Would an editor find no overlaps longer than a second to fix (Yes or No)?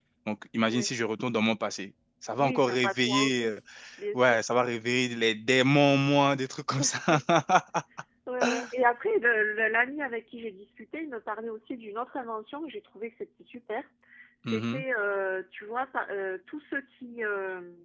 No